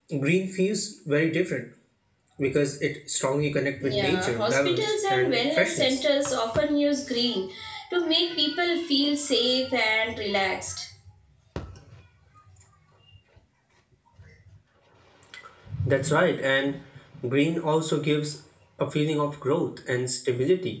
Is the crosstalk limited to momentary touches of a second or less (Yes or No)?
No